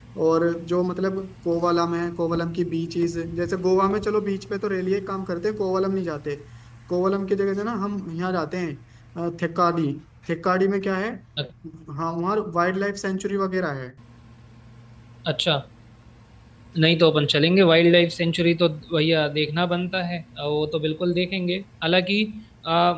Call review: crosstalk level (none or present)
none